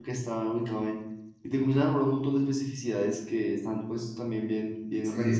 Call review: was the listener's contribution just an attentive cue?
No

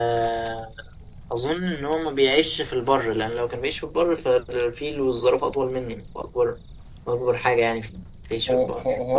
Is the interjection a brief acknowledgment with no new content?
No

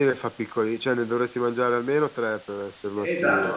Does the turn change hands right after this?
Yes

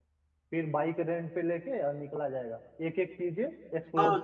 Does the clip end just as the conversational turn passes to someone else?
Yes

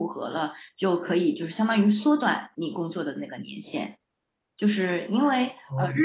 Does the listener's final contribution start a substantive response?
No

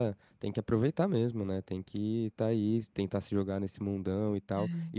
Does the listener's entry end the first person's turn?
No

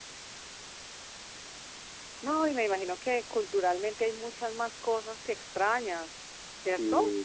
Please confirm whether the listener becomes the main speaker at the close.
Yes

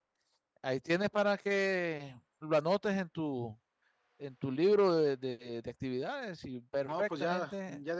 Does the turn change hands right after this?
Yes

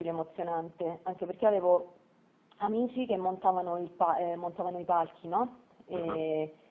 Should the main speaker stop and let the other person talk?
No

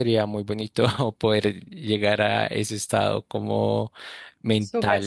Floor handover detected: Yes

